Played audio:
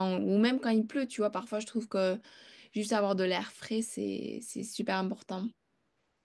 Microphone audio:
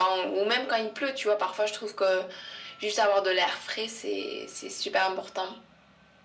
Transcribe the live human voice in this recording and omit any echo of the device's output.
none

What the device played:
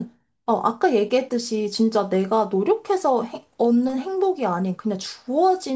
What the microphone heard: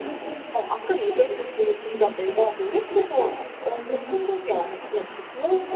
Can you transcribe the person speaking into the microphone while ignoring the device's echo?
none

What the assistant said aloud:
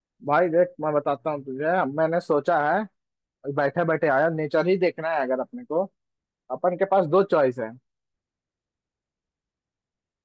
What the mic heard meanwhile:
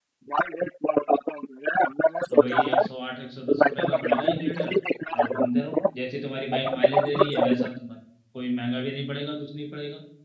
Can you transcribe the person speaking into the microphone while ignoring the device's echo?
तो वही एक सौ आठ एक सौ दस रुपये का पड़ेगा एक लीटर और घूमते रहो जैसी तुम्हारी बाइक माइलेज दे रही है वैसा तुम्हारा कोई महंगा भी नहीं पड़ेगा कुछ नहीं पड़ेगा

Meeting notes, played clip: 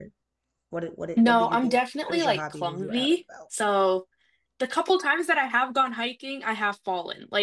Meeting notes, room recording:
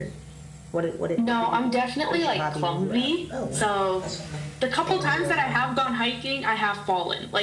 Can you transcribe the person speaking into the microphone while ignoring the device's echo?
Oh wow. That's fun. Yeah, that's real fun.

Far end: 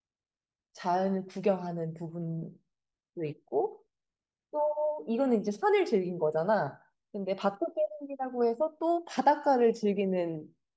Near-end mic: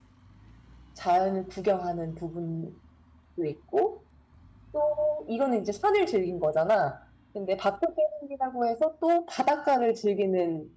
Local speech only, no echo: none

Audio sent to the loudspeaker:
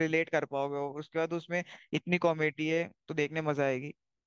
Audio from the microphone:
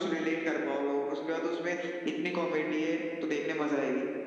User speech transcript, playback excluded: none

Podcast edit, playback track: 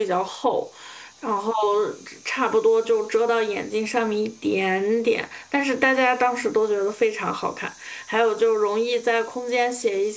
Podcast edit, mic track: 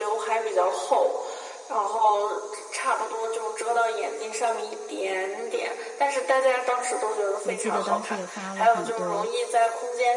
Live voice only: 我记得当时也发了很多，

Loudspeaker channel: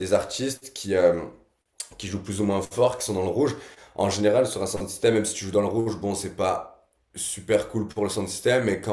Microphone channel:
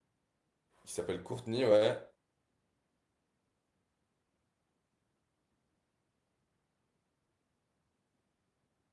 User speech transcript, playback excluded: Qui s'appelle Courtney, ouais.

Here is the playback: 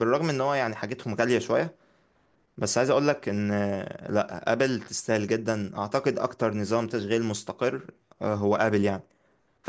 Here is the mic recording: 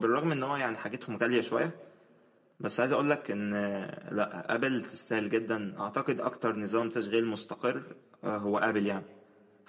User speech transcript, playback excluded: none

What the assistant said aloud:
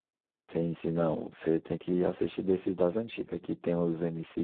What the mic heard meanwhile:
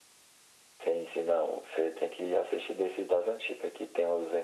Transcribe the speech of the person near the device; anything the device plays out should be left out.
none

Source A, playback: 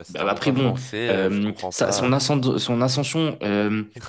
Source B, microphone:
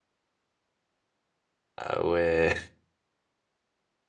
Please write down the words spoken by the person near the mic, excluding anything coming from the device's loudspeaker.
Ah ouais,

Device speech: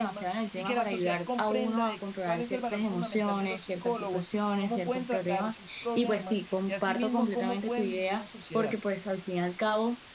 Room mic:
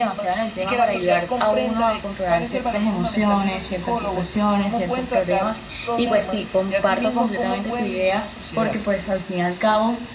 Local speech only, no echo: none

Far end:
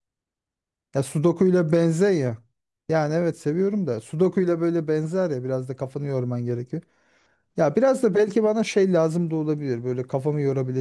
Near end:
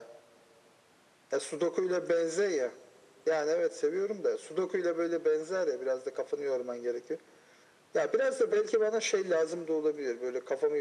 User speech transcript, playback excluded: none

